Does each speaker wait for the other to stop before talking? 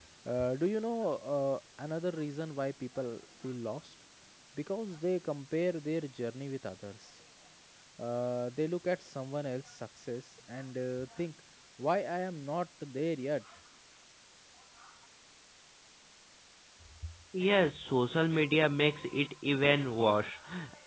Yes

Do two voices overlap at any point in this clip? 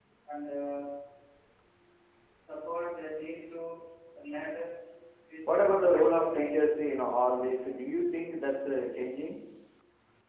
Yes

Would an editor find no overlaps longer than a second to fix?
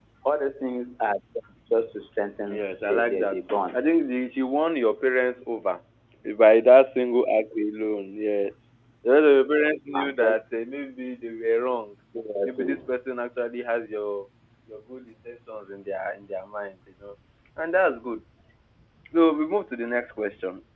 No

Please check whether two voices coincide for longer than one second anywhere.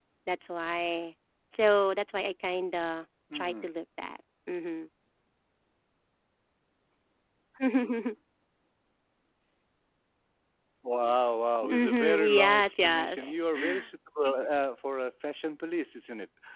Yes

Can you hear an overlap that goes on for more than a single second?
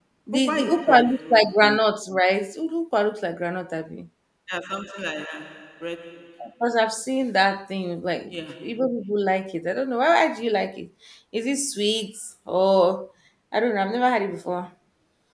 Yes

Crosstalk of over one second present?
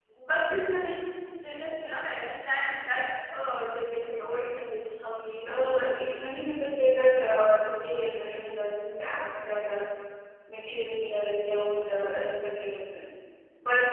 No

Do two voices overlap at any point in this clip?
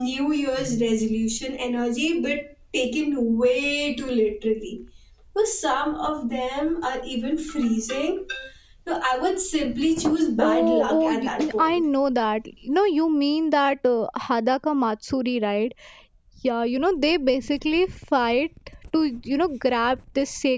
Yes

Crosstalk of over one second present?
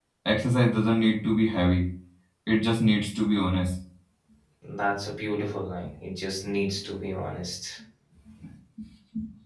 No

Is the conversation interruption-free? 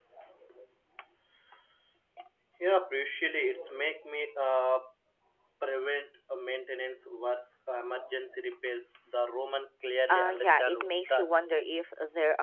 No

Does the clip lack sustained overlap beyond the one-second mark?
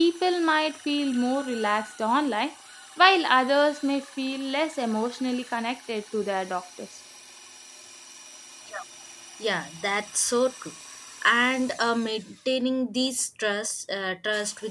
Yes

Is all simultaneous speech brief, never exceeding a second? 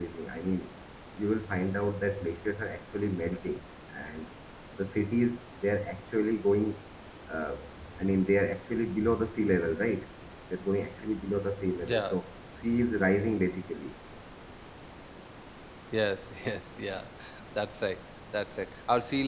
Yes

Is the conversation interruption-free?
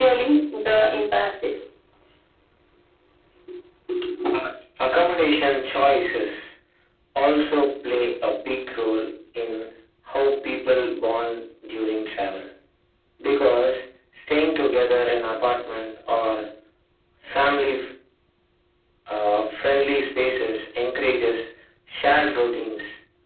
Yes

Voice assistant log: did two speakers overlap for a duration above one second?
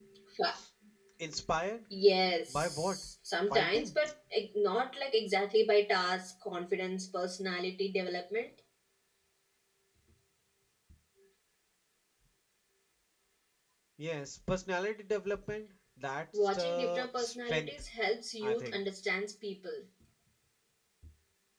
Yes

